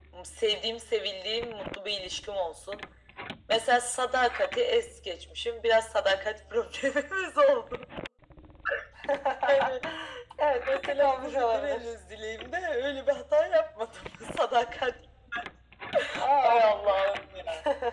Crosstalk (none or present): present